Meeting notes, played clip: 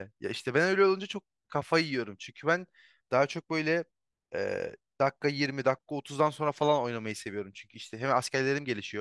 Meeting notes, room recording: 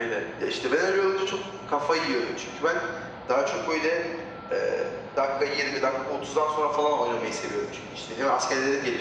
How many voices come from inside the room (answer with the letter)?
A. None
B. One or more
A